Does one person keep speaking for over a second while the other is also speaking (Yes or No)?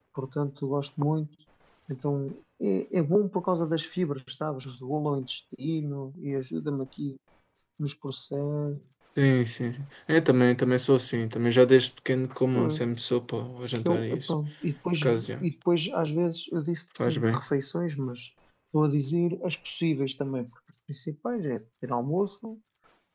No